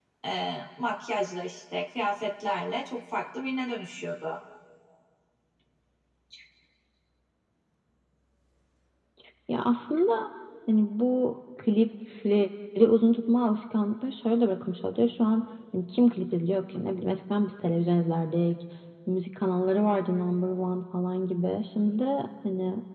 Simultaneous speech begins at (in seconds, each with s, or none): none